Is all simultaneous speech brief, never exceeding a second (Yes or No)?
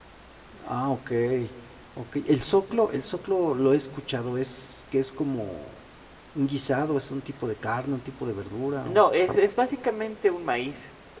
Yes